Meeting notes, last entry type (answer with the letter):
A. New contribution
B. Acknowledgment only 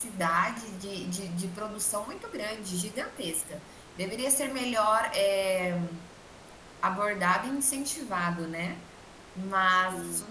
B